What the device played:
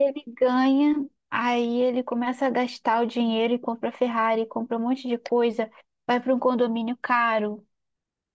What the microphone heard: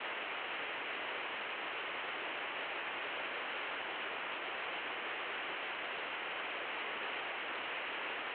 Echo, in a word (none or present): none